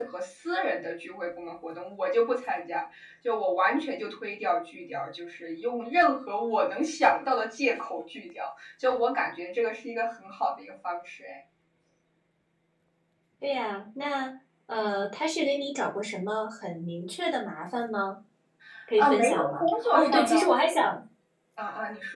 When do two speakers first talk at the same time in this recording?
19.0 s

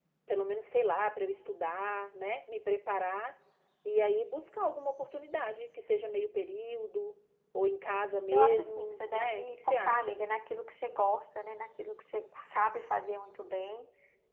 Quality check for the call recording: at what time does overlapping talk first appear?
8.3 s

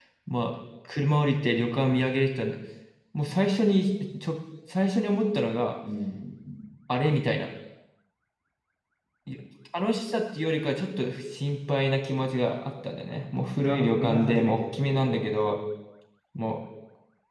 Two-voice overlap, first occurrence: 13.6 s

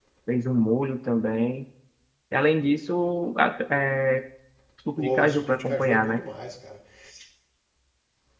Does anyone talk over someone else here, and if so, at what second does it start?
5.0 s

